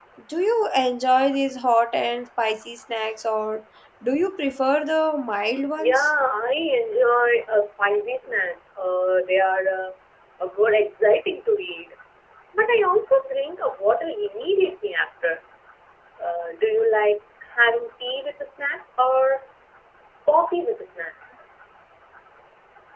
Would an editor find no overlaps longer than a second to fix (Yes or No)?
Yes